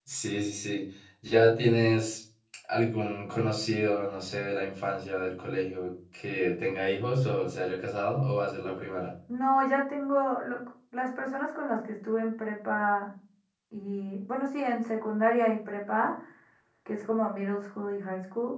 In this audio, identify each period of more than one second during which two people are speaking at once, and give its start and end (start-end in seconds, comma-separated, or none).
none